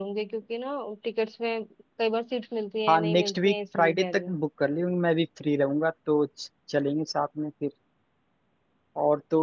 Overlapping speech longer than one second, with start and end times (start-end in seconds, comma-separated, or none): 2.9-4.4